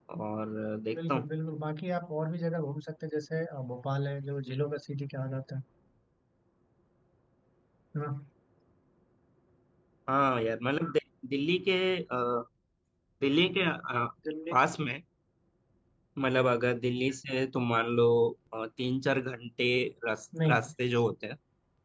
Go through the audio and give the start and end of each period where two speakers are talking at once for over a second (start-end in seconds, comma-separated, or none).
none